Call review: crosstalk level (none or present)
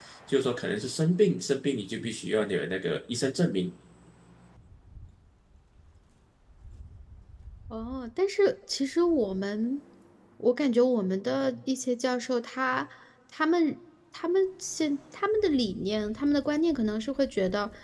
none